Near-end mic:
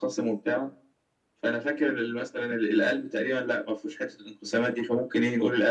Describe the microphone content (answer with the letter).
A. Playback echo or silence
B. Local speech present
A